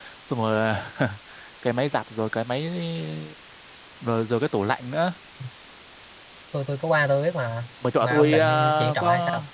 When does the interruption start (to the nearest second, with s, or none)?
8 s